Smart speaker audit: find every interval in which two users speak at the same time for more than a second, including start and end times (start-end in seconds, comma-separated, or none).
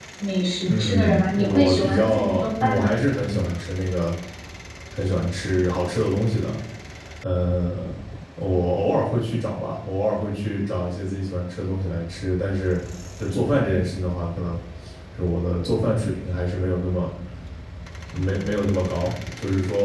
0.7-2.9